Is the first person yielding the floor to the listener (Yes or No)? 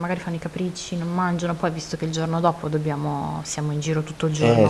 Yes